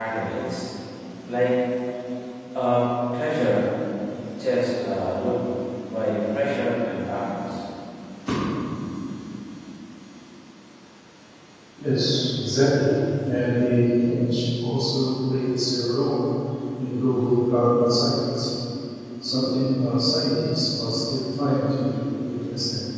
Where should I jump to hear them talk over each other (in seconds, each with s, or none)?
none